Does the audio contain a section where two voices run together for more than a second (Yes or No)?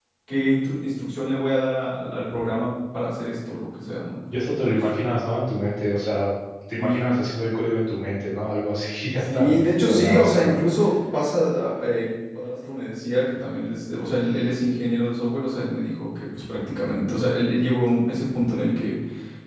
Yes